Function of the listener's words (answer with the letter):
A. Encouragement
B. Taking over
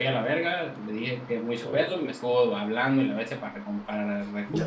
B